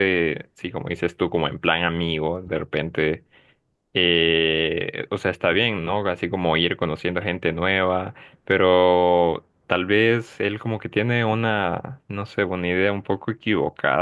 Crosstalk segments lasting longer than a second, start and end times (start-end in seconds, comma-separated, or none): none